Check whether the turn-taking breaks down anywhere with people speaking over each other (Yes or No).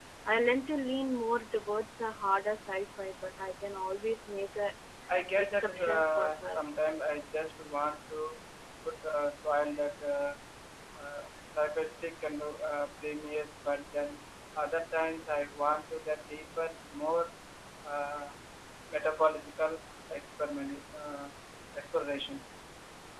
Yes